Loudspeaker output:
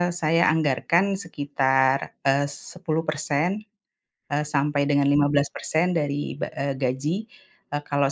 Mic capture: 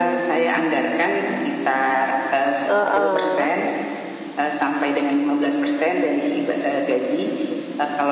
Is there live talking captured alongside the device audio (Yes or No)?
Yes